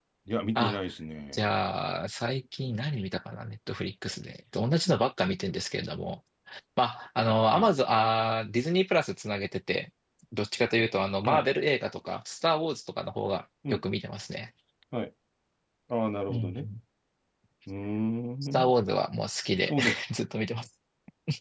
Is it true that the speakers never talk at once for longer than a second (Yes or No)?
Yes